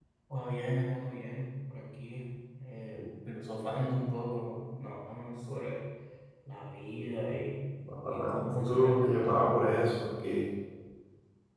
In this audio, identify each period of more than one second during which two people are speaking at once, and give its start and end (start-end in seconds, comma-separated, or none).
8.0-9.6